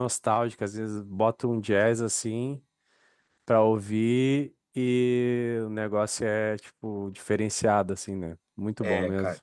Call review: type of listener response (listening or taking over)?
taking over